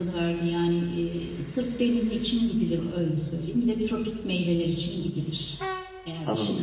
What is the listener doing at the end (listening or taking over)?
taking over